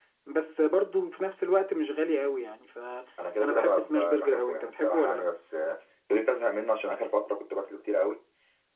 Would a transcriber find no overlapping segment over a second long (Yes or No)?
No